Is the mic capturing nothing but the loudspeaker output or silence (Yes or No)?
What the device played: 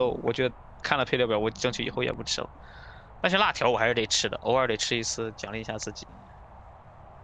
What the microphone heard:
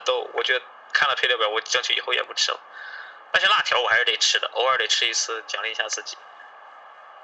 Yes